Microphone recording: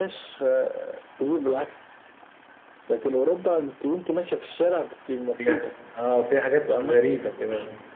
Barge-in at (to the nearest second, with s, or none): 5 s